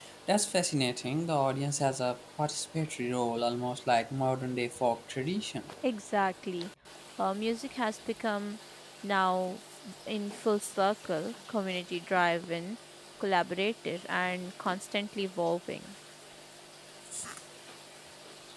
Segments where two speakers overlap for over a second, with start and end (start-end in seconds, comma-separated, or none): none